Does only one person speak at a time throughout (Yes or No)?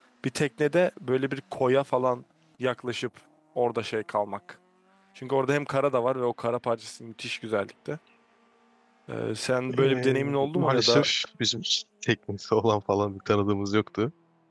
No